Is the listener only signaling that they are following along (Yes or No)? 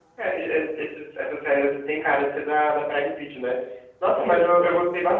Yes